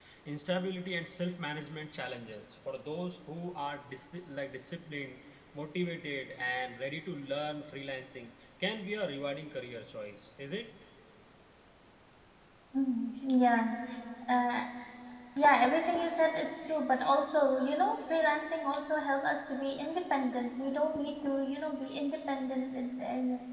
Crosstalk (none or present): none